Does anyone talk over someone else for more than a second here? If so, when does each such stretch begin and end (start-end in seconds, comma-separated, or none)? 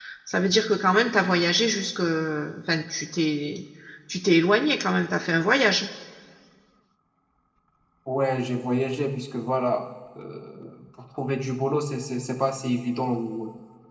none